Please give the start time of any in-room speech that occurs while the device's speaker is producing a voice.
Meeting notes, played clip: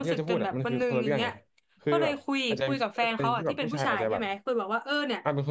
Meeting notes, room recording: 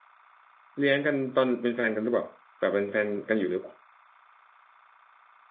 0.8 s

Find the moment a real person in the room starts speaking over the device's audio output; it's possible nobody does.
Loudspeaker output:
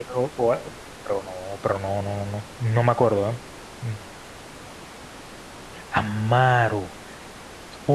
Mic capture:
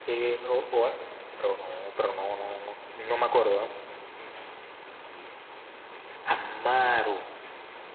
none

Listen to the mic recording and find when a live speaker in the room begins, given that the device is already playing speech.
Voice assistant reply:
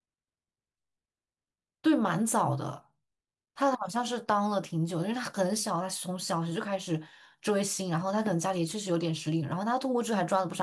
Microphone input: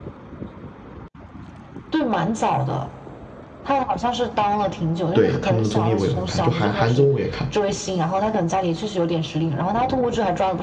5.1 s

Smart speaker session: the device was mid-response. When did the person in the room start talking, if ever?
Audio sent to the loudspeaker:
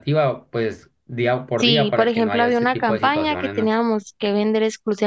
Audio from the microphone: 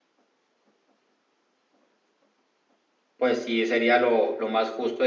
3.2 s

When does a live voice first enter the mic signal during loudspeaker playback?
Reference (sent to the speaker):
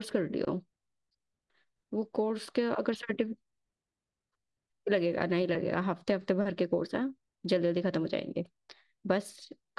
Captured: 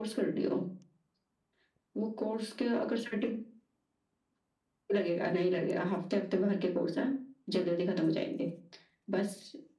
none

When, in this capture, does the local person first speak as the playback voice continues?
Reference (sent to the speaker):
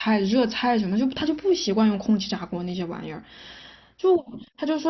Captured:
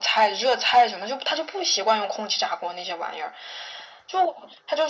none

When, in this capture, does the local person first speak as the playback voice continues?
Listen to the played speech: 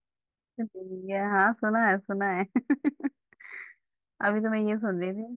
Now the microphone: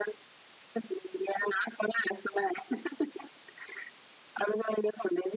none

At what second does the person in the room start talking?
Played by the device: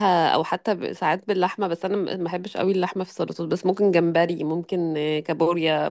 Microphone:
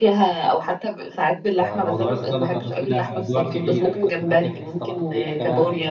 1.6 s

